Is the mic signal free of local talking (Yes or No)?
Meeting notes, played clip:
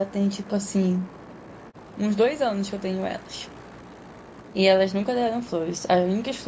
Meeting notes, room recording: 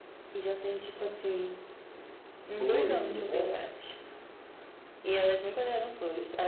No